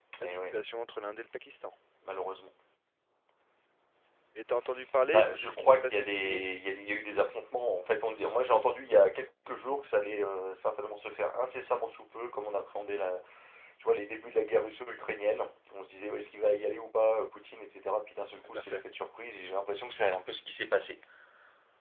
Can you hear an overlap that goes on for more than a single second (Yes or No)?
Yes